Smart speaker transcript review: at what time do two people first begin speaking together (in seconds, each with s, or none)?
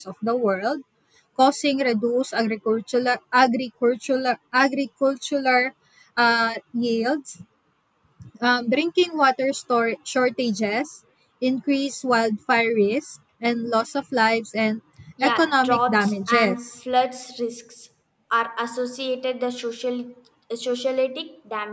15.2 s